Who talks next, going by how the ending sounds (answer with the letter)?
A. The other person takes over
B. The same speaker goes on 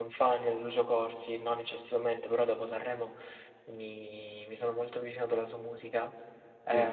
B